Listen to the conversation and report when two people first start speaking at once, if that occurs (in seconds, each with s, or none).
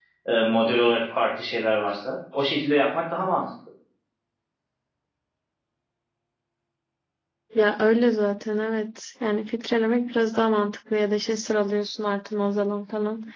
none